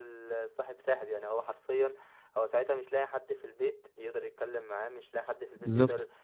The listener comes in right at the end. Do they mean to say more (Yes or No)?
No